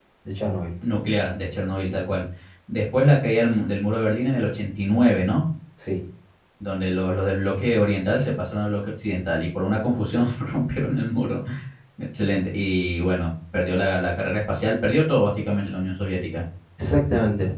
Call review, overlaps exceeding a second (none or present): none